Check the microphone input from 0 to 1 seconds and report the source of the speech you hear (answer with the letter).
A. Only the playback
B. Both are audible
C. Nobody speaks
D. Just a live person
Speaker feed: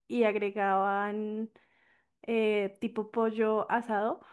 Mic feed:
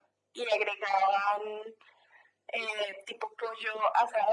A